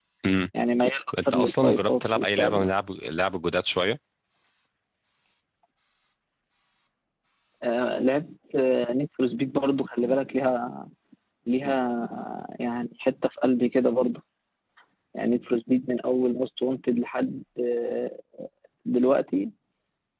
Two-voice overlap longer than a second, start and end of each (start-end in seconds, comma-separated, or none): 1.3-2.7